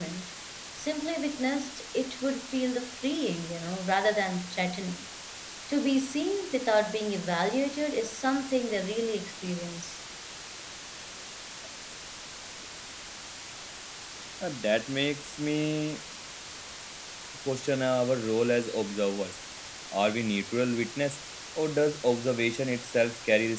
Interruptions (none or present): none